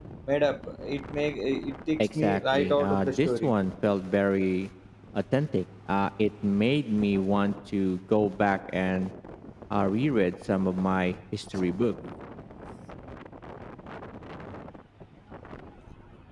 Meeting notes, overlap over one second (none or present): present